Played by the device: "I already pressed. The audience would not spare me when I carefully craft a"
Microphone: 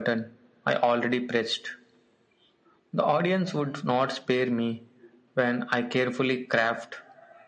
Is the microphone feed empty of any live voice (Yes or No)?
Yes